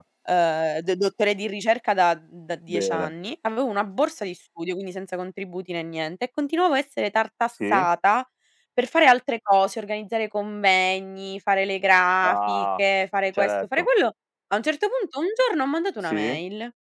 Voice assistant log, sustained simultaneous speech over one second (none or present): none